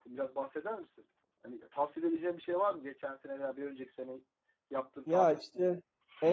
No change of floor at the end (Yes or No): No